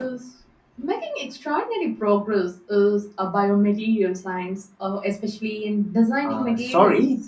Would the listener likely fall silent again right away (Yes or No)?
No